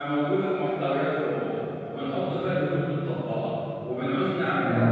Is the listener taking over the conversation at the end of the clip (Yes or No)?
No